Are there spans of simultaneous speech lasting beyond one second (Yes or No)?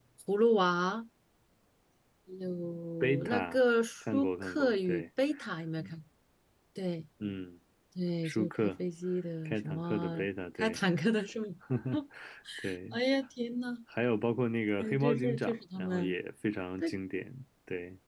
Yes